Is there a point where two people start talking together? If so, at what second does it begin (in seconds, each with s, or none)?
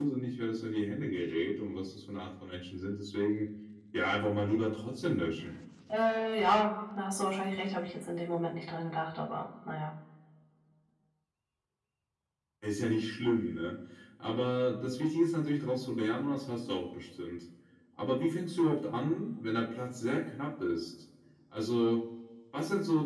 none